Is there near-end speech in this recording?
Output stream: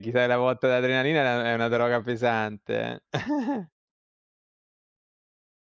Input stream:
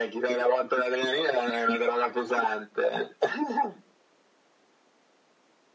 No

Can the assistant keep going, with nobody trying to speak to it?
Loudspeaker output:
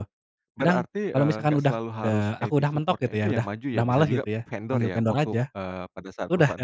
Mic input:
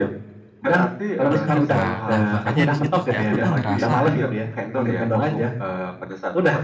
No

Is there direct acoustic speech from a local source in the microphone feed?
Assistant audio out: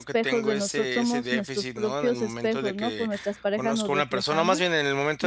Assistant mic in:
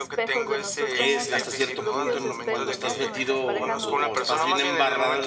Yes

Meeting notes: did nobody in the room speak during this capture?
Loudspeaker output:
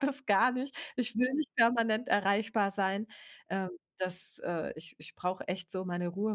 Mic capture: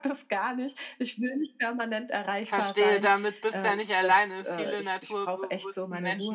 No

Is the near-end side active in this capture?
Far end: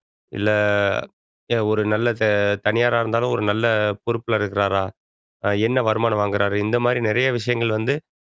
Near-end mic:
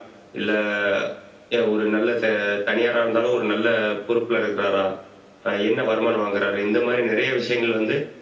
No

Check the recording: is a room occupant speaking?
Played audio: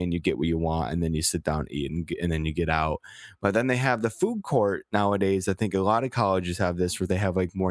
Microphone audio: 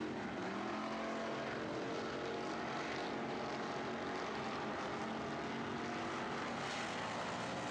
No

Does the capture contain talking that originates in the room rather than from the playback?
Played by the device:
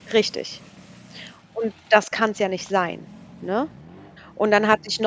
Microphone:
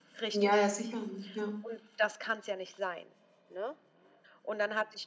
Yes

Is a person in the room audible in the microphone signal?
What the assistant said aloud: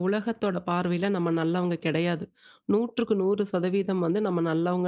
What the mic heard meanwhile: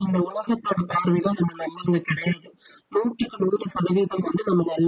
No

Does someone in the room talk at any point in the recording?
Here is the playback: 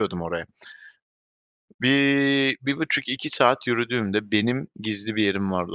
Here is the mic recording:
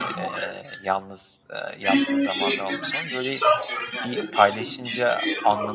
Yes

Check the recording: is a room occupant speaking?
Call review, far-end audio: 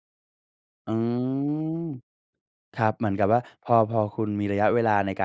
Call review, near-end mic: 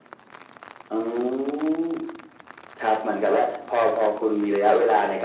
No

